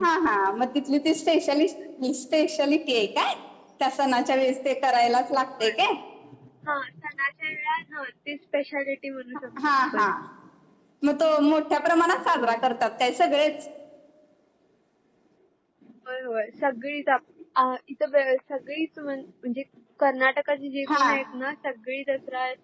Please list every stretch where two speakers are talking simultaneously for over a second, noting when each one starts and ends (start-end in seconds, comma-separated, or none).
none